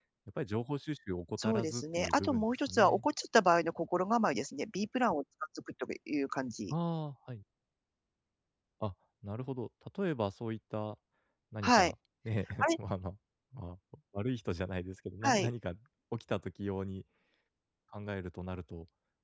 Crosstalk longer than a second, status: present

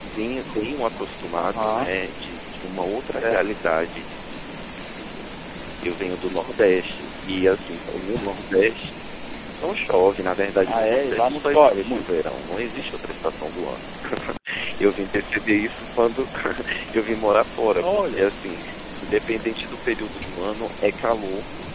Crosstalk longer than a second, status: present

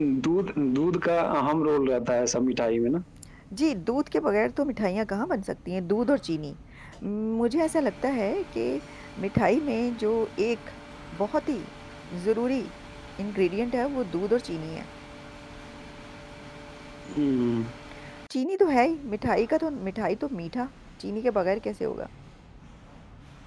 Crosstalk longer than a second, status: none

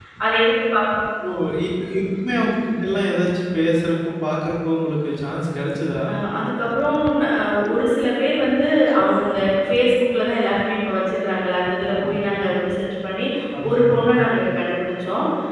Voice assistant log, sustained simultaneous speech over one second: none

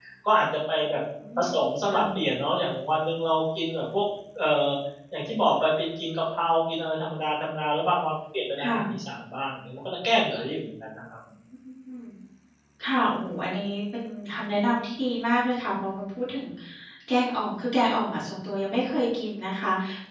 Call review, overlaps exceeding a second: none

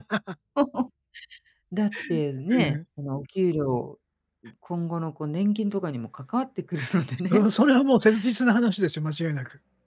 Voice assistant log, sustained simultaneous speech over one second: none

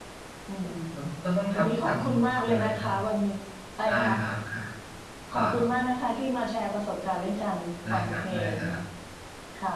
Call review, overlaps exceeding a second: present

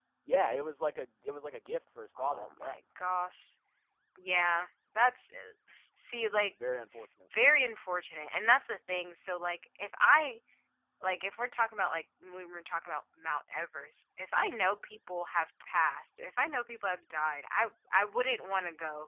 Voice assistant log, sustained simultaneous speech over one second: none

